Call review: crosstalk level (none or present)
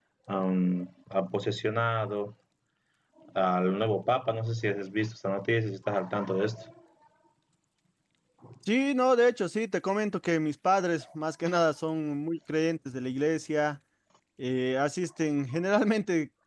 none